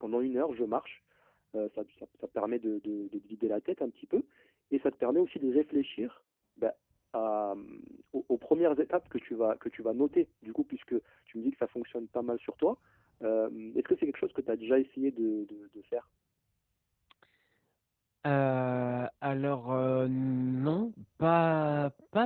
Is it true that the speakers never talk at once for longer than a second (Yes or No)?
Yes